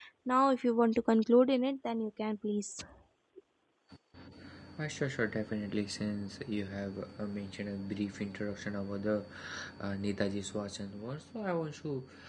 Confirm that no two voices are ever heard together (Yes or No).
Yes